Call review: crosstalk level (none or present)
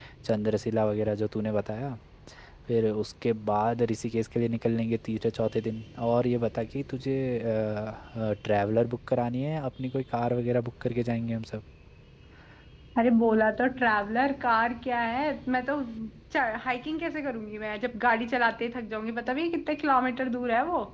none